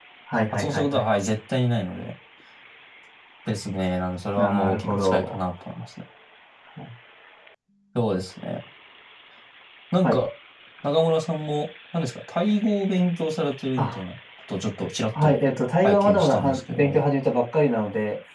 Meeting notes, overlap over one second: present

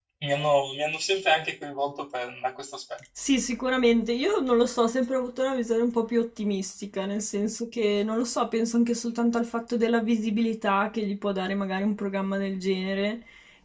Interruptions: none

